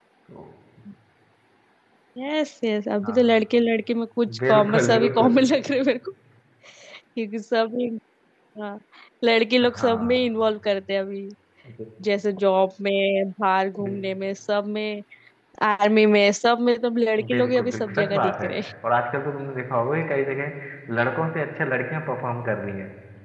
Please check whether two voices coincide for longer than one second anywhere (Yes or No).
Yes